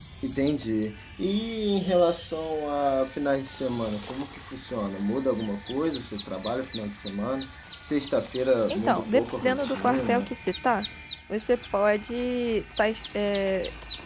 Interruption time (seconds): 9 s

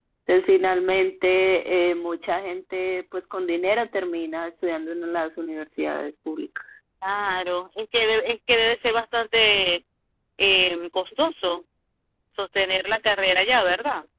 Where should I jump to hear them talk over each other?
none

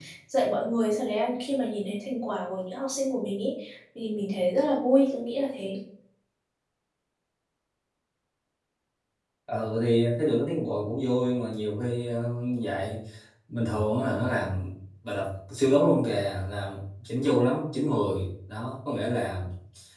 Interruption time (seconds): none

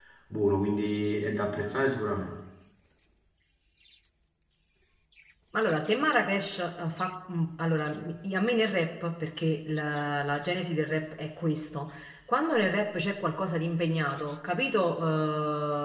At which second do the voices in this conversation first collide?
none

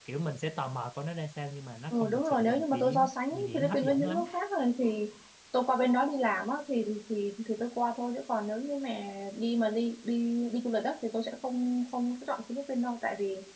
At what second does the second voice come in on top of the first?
2 s

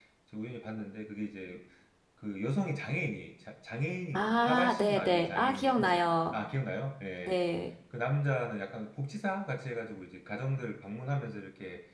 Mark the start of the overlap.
4 s

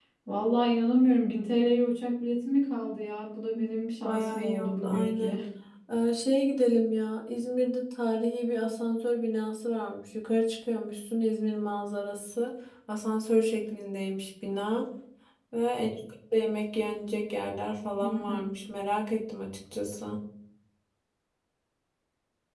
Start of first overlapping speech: 4 s

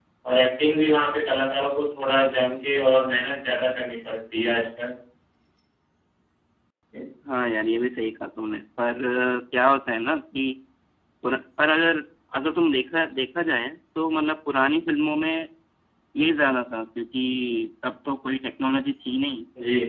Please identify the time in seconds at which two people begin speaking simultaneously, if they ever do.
none

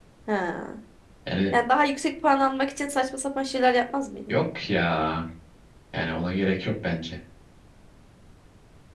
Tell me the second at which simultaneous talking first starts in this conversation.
none

